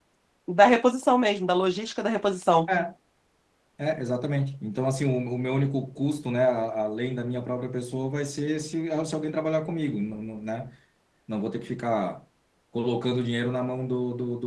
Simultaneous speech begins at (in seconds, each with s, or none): none